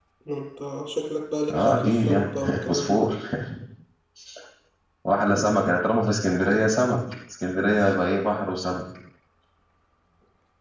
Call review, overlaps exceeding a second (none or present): present